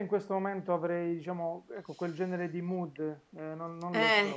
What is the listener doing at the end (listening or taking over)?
taking over